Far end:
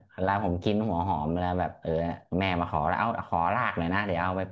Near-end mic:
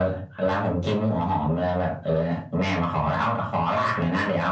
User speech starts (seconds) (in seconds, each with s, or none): none